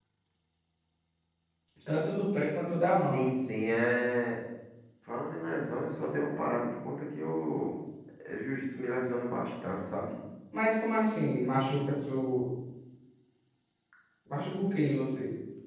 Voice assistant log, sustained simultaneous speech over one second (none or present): none